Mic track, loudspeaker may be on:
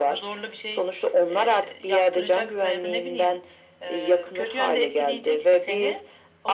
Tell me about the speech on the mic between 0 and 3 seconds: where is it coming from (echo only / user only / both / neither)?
echo only